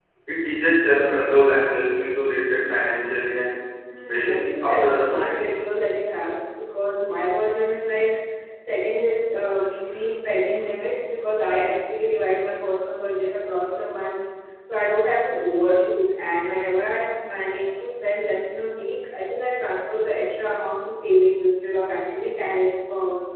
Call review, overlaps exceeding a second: present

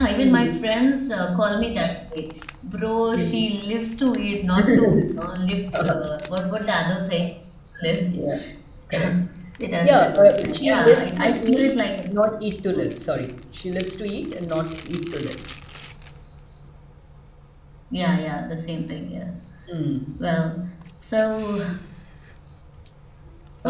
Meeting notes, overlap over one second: present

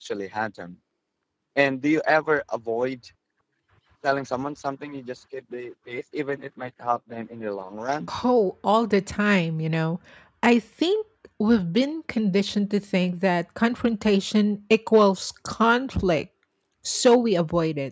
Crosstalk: none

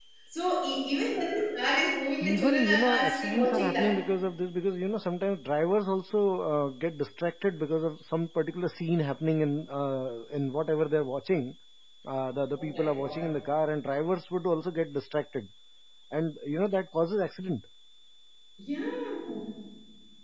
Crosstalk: present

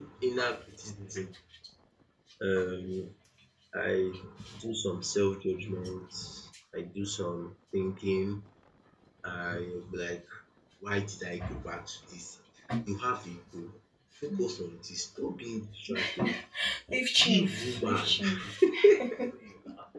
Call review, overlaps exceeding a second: present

